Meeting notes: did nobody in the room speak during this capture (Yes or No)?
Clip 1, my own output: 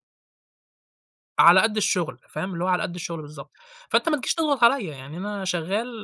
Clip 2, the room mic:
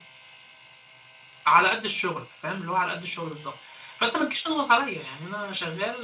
Yes